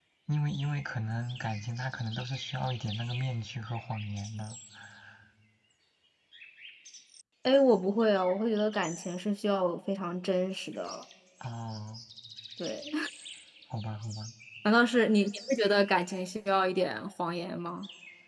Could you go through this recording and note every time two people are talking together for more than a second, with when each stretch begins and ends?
none

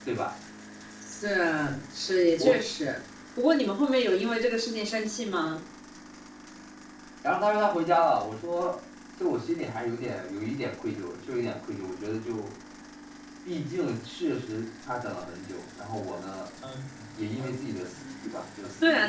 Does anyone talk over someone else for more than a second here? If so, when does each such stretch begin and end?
none

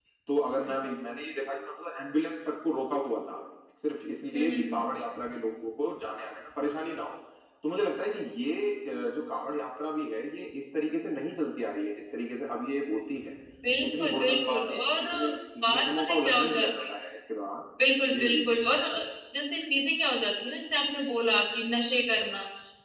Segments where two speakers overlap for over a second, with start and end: 13.8-15.1, 15.6-16.9

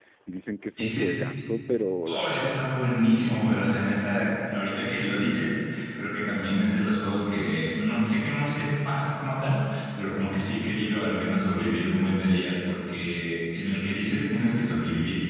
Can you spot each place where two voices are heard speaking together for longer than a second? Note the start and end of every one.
none

